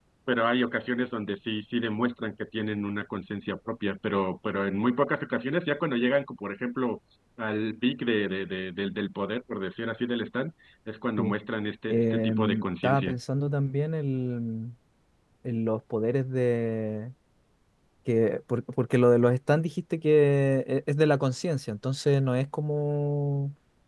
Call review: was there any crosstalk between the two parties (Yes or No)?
Yes